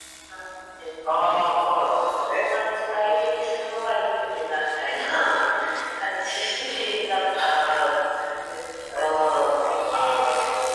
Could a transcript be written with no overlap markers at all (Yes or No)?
No